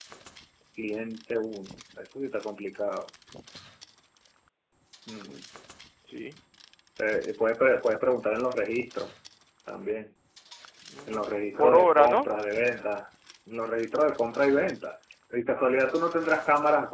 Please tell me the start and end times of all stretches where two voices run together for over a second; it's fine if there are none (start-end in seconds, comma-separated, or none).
11.1-12.3